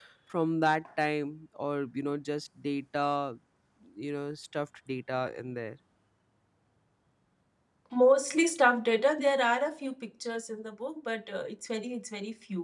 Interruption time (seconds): none

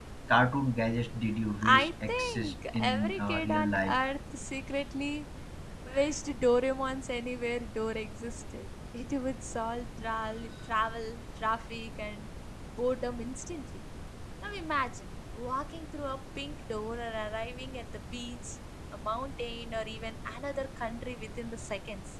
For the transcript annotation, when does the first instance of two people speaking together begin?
1.6 s

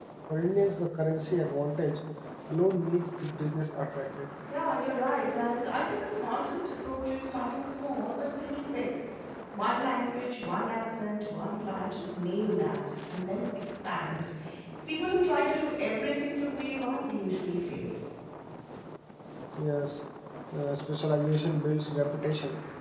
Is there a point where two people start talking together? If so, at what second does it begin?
none

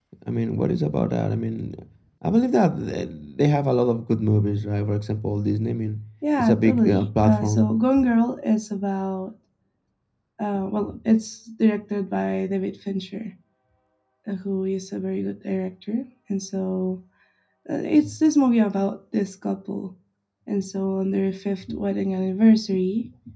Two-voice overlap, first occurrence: 6.4 s

